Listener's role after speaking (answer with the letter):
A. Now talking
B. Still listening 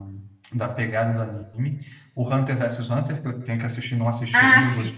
B